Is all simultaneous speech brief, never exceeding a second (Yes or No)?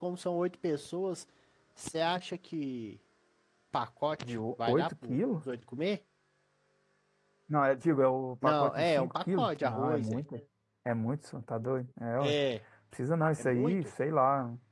No